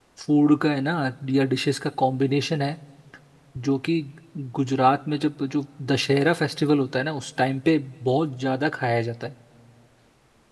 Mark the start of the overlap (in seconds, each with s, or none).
none